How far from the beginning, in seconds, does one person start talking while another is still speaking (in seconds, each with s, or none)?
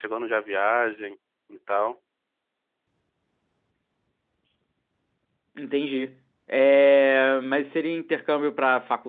none